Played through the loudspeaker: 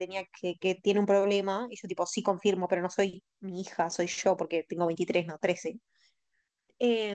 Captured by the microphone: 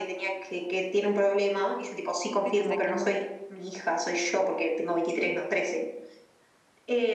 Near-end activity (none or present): present